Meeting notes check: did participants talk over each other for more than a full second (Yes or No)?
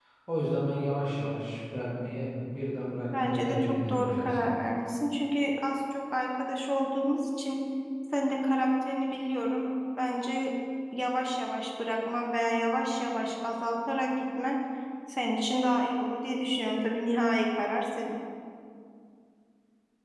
Yes